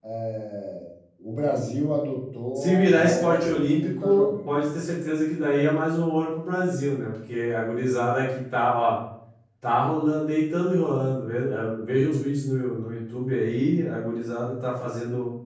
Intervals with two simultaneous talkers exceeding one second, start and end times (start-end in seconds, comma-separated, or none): 2.6-4.7